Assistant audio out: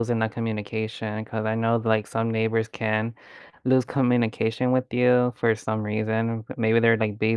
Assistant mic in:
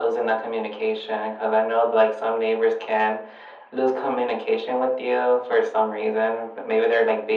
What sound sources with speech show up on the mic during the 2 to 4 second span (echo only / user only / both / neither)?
echo only